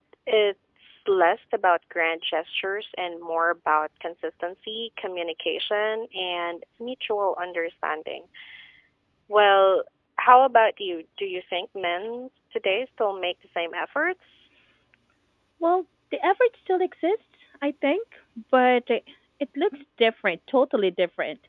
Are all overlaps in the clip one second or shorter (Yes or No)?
Yes